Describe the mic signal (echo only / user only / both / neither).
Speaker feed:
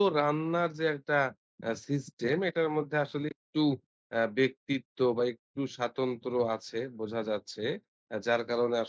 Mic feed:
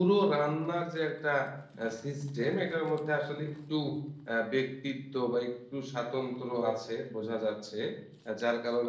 echo only